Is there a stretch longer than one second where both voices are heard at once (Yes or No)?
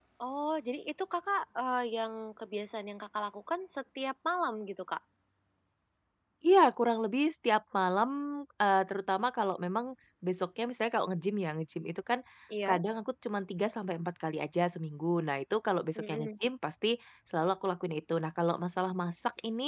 No